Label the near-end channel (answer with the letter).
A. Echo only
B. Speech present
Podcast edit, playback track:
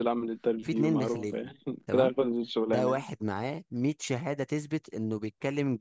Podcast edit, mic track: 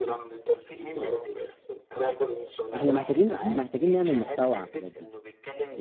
B